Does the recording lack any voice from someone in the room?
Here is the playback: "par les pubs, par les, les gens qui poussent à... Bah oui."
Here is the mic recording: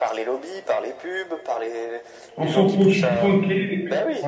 No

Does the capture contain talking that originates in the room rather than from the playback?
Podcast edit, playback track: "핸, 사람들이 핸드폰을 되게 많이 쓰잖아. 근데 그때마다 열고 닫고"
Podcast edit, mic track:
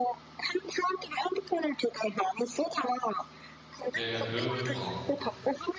Yes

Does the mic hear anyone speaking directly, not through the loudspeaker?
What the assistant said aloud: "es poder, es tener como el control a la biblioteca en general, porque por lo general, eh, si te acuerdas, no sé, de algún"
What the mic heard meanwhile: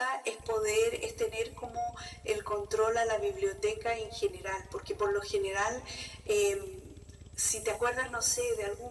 No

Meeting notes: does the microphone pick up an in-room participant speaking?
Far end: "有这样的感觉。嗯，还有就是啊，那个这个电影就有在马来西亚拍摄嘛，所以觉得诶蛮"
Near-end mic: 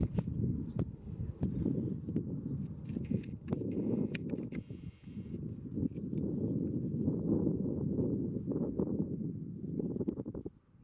No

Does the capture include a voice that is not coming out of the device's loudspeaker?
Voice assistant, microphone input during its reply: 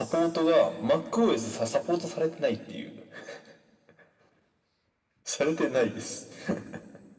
No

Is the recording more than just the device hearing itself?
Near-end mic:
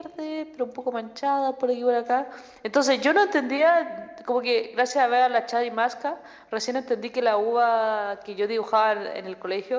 No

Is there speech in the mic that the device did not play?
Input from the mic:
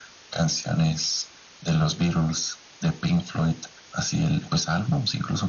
No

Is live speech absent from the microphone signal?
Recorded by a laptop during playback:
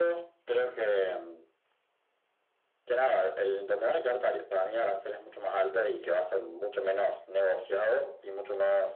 Yes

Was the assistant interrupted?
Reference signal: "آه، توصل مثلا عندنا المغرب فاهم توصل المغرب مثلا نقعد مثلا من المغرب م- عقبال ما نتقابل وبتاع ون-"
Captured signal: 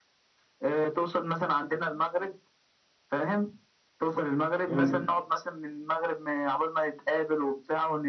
Yes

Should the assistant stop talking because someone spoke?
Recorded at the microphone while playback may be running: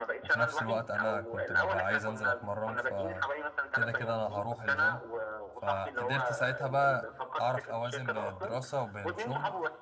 Yes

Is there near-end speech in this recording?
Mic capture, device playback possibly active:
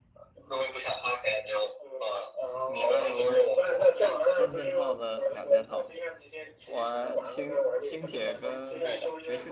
Yes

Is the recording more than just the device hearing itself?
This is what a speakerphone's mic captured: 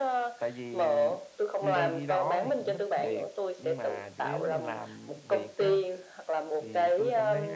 Yes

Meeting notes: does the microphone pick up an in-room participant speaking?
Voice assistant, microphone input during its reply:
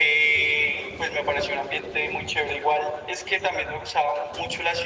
No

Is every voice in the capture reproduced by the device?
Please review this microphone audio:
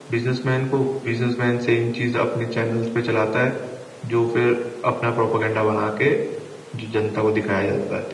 Yes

